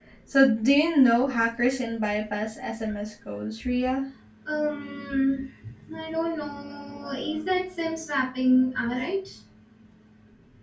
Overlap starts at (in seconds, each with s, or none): none